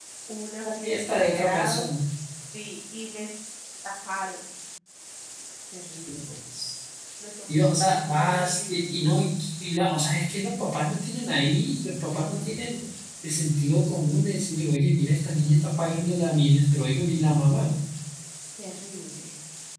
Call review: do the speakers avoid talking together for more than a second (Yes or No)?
No